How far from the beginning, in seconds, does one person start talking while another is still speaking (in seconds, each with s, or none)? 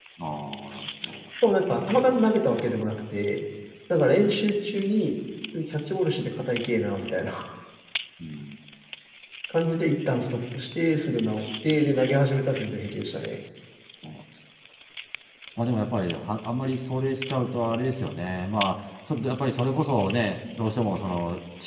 none